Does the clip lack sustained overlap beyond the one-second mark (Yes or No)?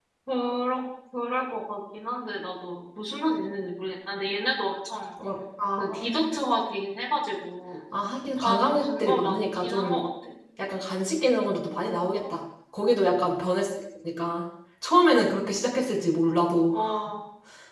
No